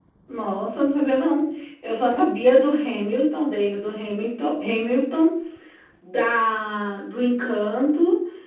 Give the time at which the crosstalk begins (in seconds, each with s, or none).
none